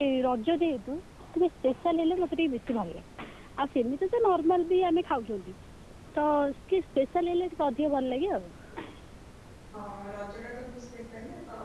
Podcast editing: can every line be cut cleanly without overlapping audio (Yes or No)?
Yes